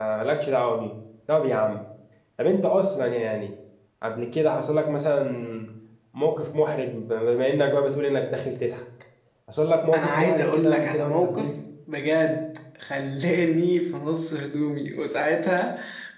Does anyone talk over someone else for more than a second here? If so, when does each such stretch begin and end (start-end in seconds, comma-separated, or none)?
9.9-11.5